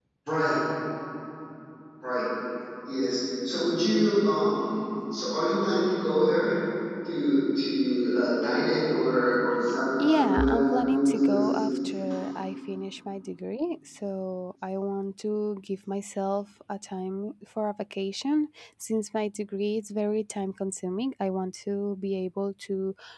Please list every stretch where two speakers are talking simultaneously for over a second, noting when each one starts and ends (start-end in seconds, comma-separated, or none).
10.1-11.6